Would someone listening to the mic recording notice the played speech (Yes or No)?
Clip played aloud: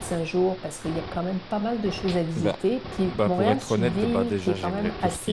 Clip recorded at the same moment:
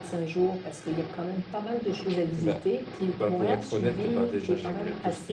Yes